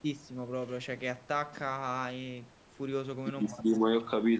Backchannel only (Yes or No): No